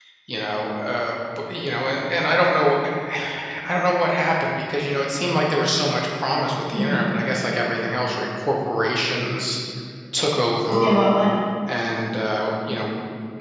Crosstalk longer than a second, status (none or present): none